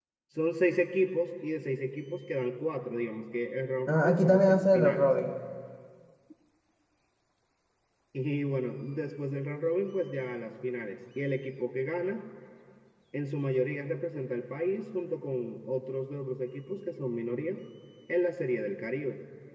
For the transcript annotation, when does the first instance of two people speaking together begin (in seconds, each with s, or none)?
3.9 s